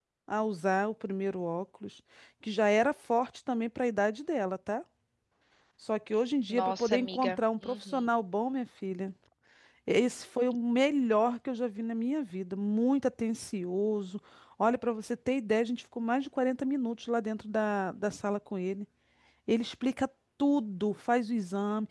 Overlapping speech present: Yes, from 6.5 s

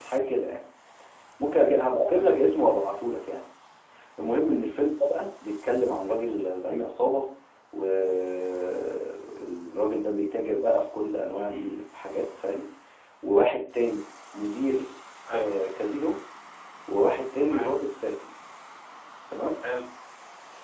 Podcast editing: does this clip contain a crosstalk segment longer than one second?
No

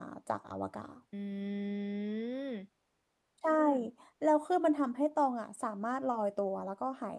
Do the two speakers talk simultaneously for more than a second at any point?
No

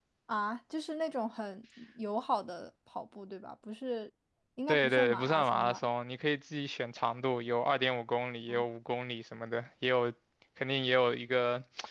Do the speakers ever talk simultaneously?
Yes, from 4.7 s

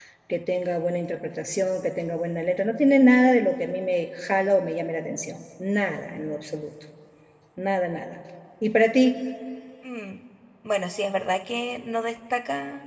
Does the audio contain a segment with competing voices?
No

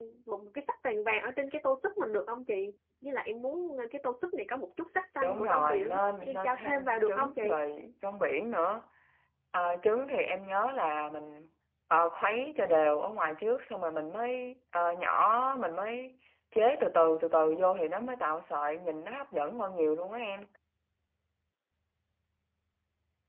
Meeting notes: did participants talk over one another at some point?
Yes, from 5.2 s

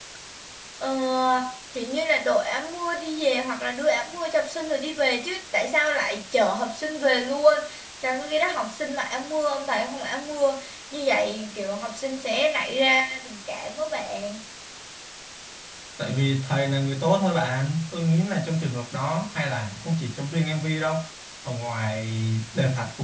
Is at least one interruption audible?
No

